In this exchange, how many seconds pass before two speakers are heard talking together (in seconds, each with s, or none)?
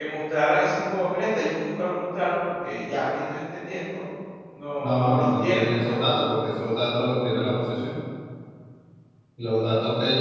4.8 s